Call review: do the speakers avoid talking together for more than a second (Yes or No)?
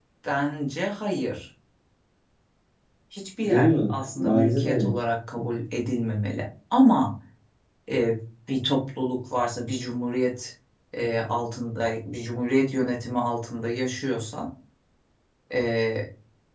No